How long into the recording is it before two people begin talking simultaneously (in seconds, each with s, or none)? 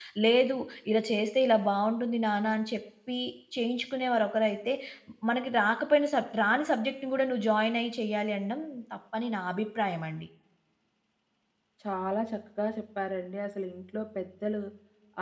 none